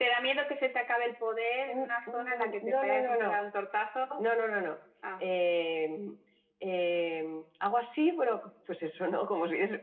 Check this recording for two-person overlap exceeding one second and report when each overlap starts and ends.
1.7-3.4

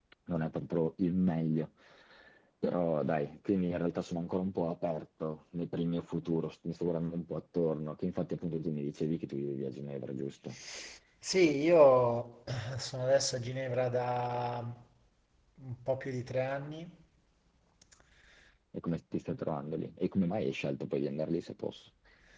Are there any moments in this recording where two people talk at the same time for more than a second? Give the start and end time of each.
none

